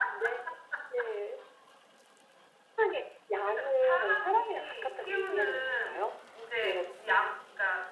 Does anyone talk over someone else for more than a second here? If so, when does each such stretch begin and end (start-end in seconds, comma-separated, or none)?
3.4-6.0